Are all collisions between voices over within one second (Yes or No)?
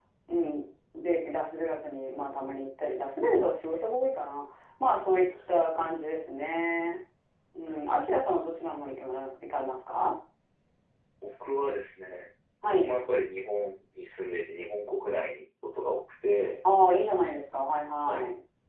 Yes